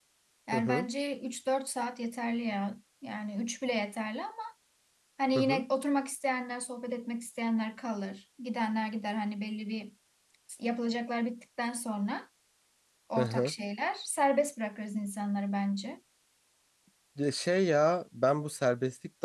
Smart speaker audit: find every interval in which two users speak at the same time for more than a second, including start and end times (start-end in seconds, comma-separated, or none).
none